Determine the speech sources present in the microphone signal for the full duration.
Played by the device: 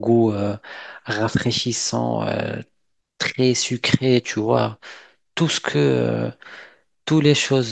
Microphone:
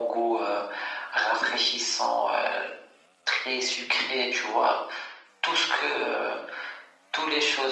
echo only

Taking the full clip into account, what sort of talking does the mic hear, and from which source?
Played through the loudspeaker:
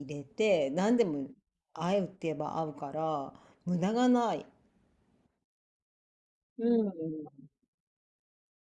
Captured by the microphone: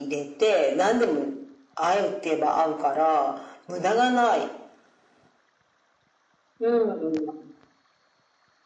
echo only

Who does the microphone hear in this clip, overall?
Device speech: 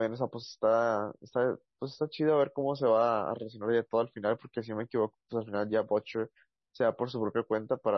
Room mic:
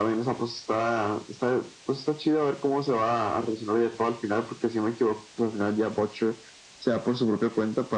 echo only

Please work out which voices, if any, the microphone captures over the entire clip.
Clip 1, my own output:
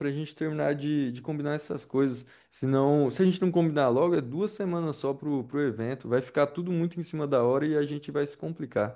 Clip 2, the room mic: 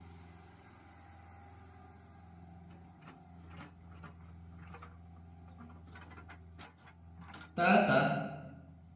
user only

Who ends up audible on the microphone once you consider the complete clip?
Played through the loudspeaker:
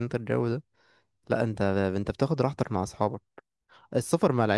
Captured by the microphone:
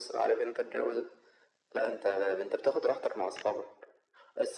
echo only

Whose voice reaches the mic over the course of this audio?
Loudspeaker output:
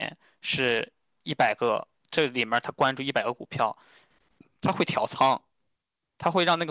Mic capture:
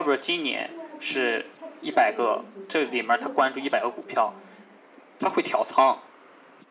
both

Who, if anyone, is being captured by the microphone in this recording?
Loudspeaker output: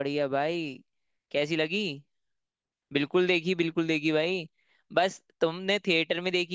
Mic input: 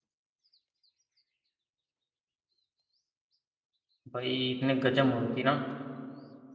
user only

